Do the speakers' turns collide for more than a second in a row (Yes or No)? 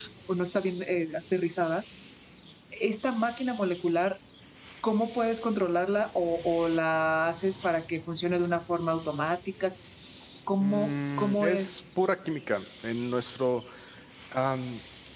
Yes